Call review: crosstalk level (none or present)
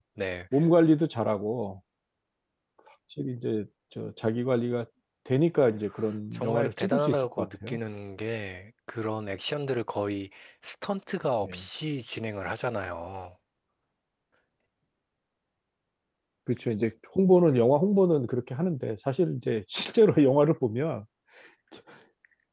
present